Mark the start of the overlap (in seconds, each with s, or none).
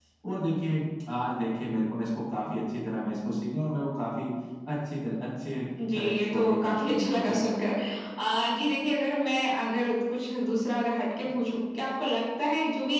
5.8 s